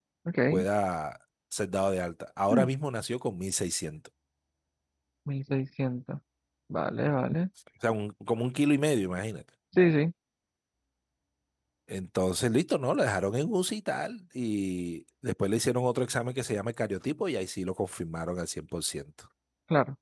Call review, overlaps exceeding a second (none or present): none